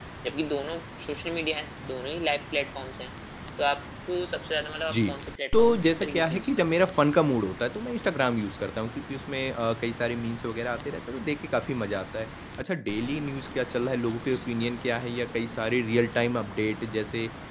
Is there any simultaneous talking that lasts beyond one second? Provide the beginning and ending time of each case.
5.5-6.9

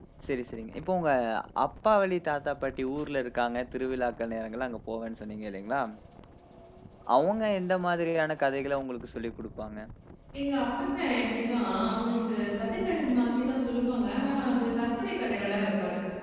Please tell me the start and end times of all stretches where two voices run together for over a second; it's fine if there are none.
none

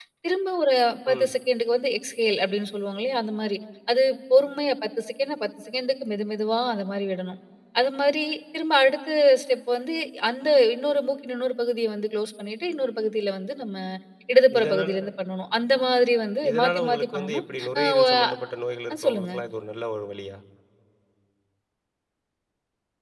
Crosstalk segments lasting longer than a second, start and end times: 16.5-18.0

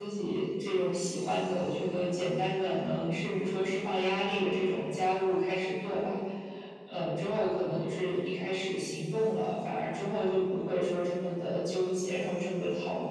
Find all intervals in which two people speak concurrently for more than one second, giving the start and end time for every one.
none

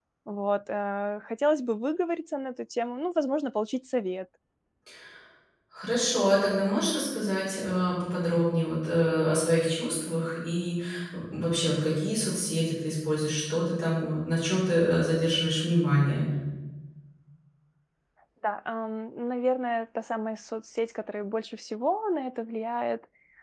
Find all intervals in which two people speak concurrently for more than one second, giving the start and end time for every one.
none

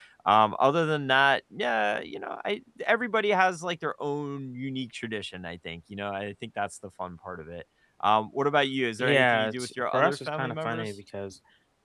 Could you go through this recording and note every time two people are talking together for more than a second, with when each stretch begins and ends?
9.0-10.9

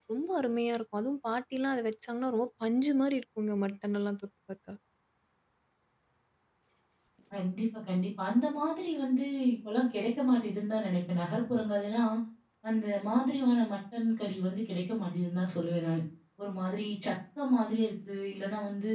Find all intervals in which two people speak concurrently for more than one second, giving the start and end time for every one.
none

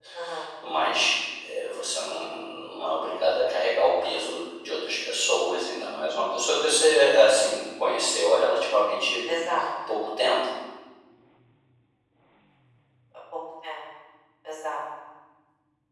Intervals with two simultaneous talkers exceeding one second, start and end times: none

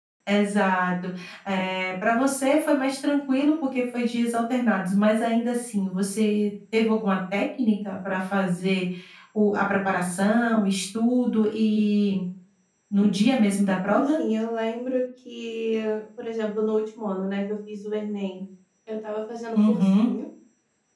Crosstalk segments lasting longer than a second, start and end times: none

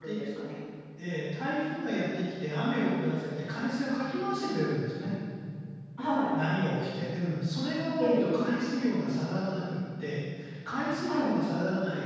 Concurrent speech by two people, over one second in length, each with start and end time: none

